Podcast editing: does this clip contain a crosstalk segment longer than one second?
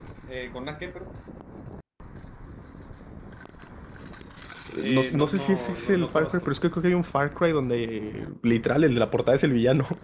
Yes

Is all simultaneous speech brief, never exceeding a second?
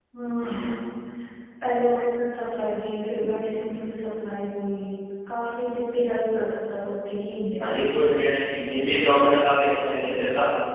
Yes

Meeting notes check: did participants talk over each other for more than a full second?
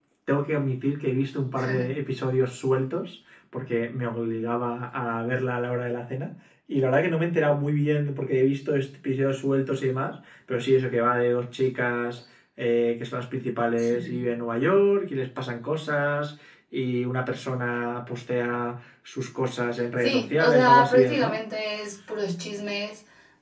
Yes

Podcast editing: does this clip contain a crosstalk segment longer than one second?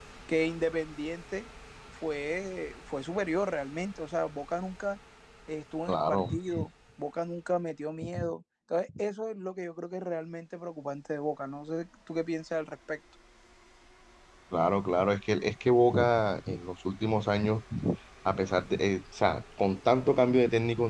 No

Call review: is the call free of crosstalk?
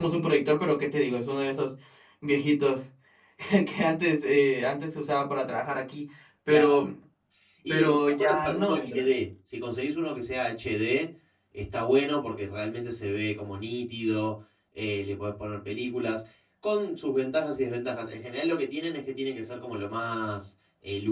No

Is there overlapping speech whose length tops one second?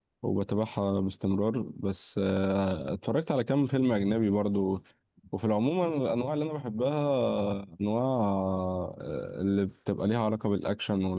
No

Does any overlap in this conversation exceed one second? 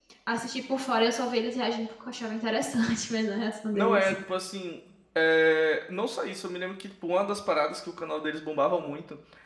No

